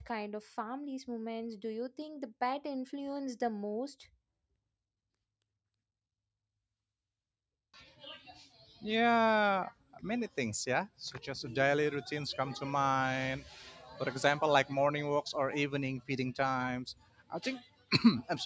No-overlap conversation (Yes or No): Yes